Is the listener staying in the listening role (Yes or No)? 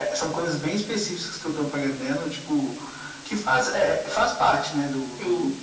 Yes